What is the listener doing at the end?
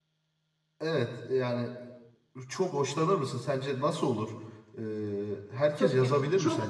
taking over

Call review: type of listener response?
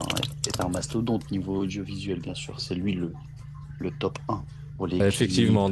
taking over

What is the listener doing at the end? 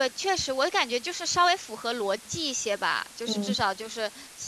listening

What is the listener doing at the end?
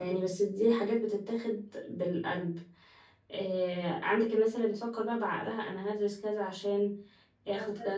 taking over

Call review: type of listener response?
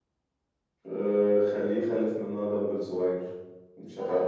taking over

